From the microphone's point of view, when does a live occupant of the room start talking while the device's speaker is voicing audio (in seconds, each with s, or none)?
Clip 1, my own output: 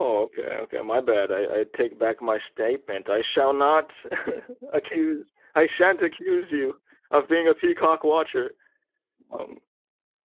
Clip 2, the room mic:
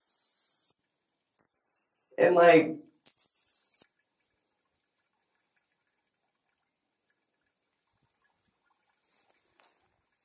2.2 s